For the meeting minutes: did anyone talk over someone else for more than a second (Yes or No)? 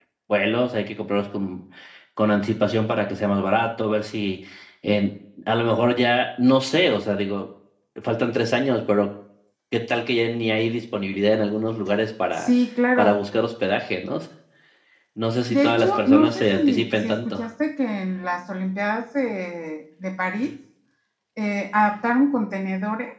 Yes